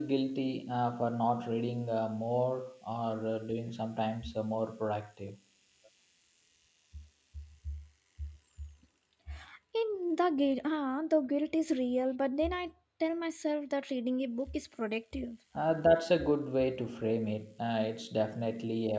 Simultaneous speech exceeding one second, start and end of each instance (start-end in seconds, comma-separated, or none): none